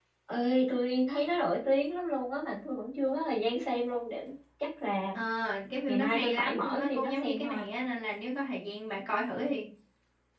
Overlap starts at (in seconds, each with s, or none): 5.9 s